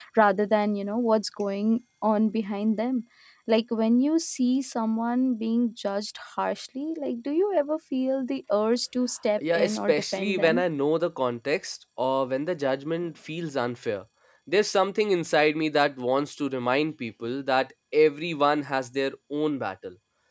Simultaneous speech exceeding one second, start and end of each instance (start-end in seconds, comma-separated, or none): 9.4-10.6